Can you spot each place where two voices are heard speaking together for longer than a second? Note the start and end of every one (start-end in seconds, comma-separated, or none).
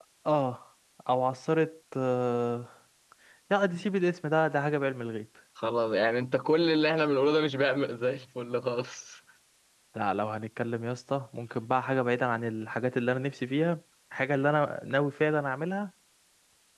none